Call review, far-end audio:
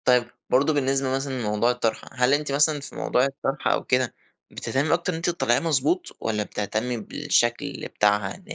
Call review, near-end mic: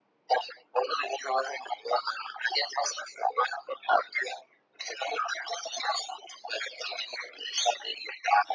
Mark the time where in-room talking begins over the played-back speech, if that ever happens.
none

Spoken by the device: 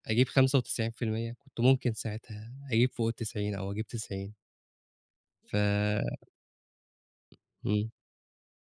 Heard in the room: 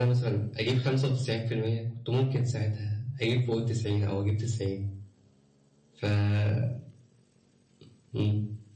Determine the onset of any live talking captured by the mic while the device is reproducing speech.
none

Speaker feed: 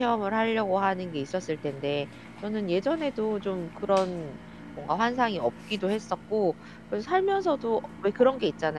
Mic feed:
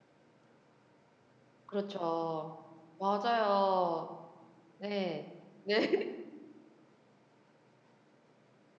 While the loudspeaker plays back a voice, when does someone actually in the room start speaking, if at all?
1.7 s

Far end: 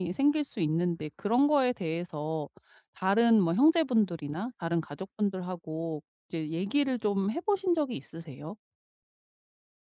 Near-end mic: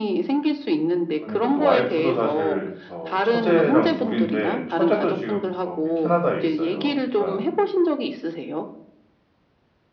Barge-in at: 1.2 s

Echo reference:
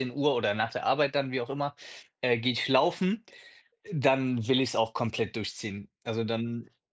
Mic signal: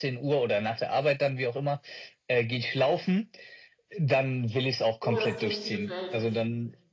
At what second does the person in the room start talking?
5.0 s

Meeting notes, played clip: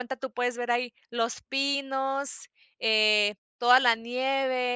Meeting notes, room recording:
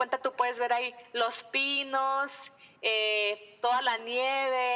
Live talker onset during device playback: none

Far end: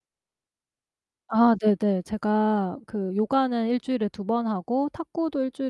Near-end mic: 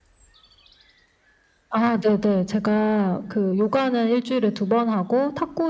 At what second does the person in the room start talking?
none

